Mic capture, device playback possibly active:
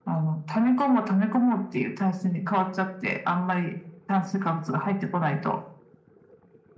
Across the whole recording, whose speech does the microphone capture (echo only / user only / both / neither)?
echo only